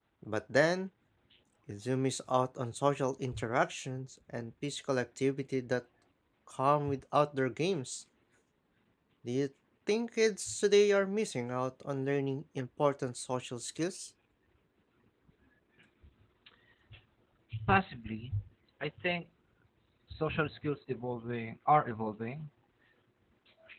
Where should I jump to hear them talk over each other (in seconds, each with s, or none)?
none